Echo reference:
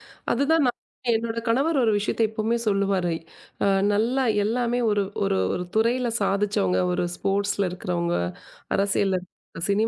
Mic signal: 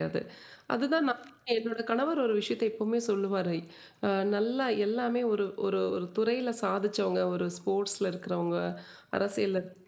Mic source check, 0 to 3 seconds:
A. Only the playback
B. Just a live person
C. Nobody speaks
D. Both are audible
A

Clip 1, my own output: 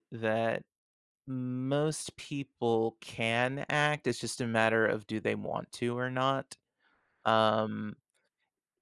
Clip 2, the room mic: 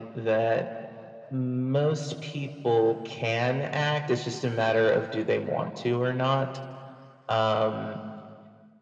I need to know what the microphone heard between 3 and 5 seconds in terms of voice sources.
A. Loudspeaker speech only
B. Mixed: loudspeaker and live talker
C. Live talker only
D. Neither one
A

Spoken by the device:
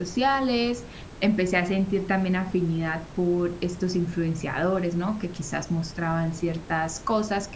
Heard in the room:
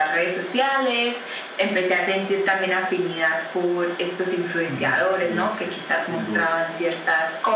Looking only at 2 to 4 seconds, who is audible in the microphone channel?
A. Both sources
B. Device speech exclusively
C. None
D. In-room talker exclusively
B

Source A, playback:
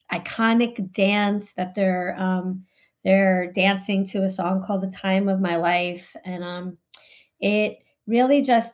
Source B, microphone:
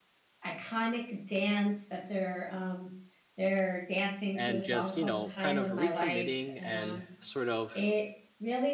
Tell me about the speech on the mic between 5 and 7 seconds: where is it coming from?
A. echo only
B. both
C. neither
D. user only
B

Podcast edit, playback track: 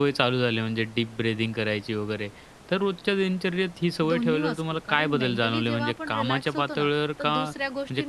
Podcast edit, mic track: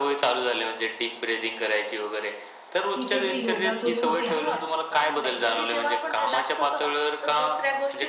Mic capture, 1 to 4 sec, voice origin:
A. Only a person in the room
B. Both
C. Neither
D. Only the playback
B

